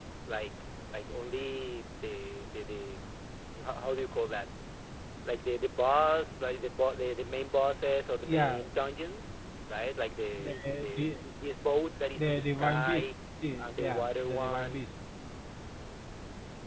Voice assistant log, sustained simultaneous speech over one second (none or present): present